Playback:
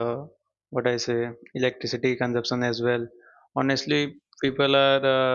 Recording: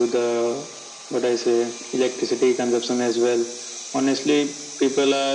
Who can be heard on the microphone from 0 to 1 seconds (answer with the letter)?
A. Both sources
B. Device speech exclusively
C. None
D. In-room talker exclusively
B